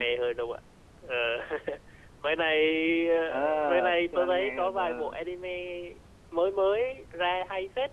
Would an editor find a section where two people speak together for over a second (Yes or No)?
Yes